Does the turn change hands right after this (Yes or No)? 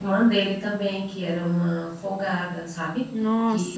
Yes